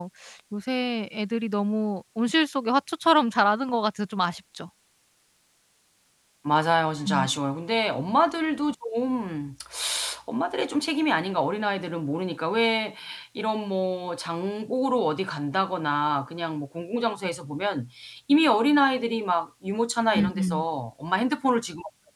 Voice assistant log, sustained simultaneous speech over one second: none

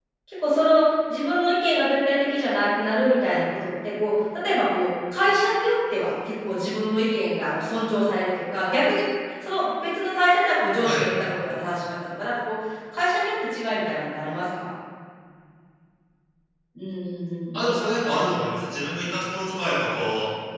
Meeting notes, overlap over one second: none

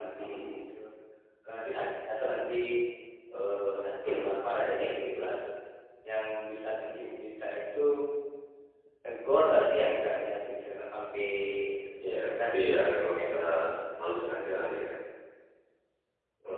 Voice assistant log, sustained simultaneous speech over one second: present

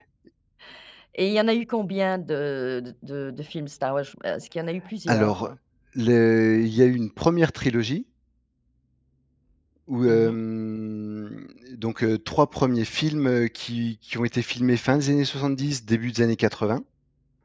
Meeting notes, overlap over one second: none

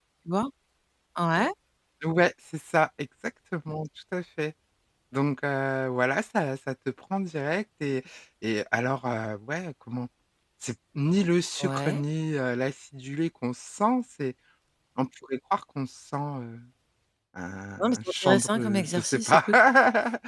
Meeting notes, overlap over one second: present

